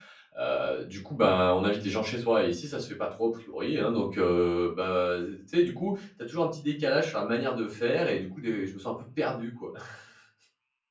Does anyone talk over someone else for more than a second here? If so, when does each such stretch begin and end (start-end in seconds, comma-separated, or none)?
none